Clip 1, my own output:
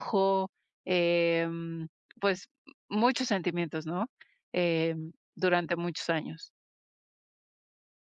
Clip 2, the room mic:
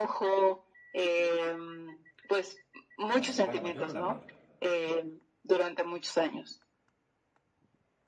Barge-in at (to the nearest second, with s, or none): 3 s